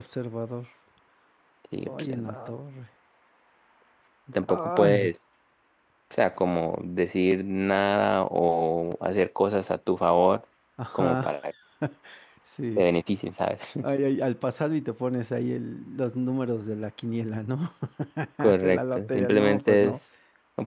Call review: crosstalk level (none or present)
present